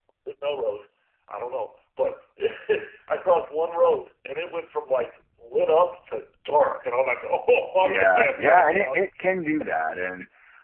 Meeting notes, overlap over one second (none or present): present